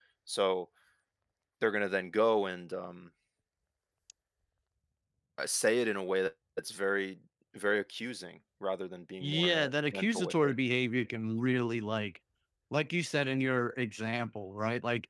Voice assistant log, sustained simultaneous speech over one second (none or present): present